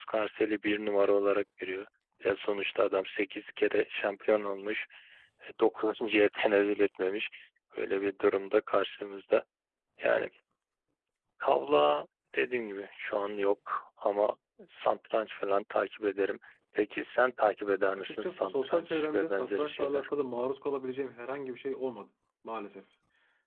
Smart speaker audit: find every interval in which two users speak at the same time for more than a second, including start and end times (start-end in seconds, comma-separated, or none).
17.9-20.1